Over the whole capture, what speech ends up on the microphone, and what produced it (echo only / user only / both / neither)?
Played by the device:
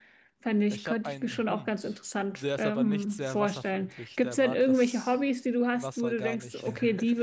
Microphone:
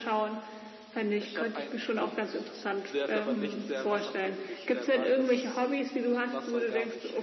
echo only